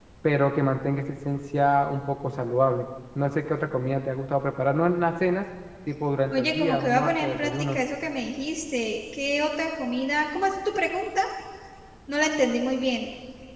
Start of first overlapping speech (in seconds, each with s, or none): 6.3 s